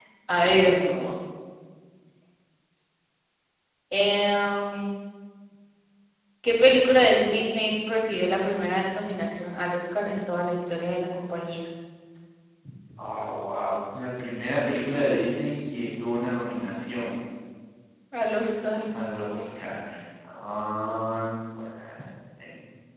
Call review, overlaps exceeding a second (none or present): none